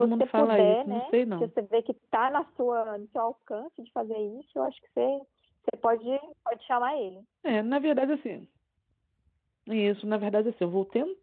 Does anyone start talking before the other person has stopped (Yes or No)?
Yes